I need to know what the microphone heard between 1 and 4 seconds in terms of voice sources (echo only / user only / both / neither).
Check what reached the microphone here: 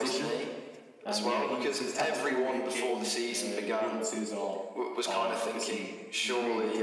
both